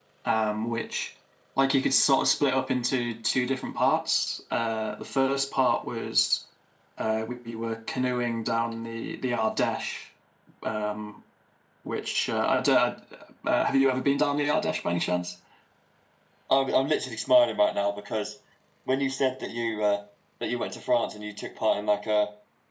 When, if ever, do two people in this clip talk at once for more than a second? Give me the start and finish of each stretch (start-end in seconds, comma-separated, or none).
none